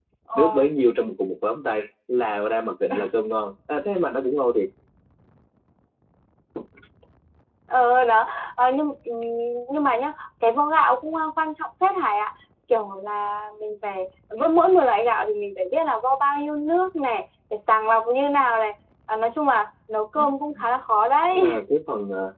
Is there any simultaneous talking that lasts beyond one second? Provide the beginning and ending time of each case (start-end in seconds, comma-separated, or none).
none